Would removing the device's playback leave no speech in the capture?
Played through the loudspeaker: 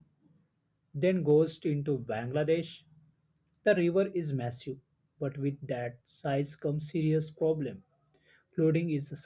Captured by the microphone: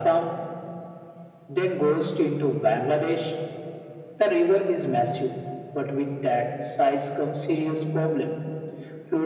Yes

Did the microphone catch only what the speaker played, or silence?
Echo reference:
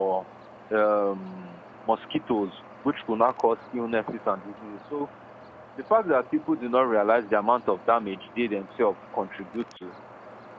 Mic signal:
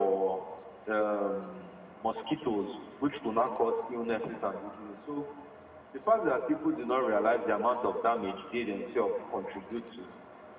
Yes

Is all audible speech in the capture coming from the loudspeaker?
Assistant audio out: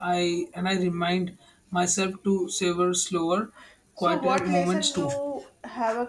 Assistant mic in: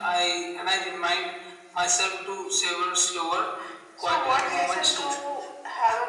Yes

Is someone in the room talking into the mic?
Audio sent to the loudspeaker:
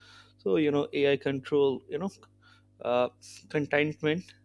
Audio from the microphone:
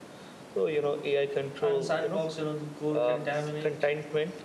Yes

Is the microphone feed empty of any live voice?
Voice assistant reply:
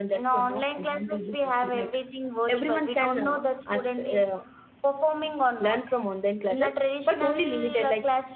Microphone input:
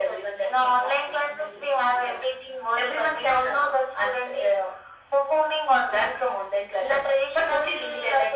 Yes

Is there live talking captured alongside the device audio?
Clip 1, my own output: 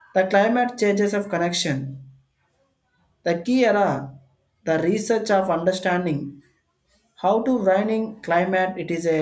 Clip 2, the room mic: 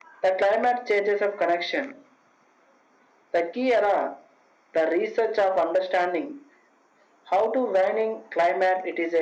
No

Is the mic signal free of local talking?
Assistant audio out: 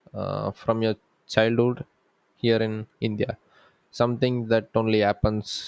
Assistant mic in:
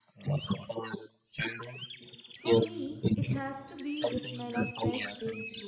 No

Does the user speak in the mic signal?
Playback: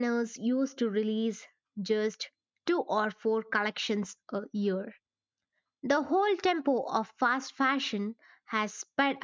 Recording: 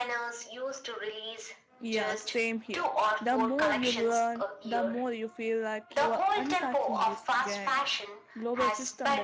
Yes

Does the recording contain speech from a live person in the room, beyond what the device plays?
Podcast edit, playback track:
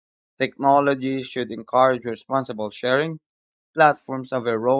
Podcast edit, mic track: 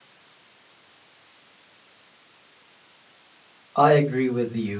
Yes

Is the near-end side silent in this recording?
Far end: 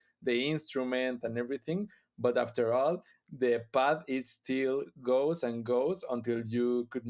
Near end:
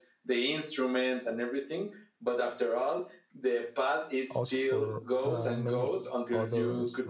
No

